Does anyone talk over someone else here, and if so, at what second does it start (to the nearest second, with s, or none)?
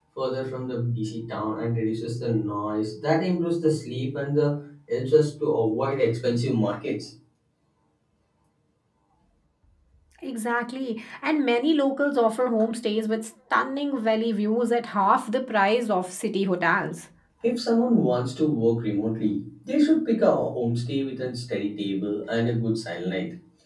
none